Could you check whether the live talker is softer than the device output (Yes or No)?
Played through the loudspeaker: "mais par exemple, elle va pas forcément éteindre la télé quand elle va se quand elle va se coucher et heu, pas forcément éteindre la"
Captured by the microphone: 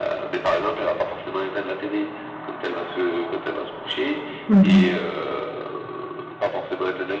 No